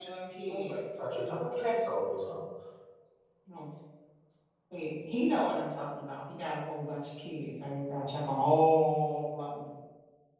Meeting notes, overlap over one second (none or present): none